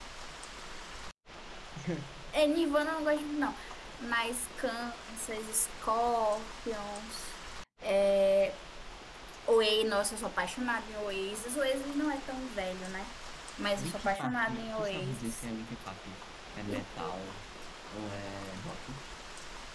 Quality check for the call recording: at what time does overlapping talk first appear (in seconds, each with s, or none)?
13.8 s